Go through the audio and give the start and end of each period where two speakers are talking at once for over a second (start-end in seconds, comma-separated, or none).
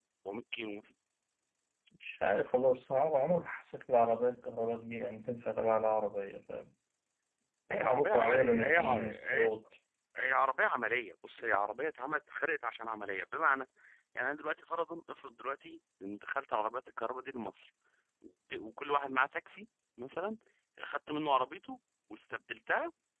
7.7-9.5